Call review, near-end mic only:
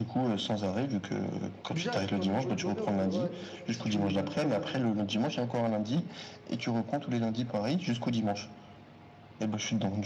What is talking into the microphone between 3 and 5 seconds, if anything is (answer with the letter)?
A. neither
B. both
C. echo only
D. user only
B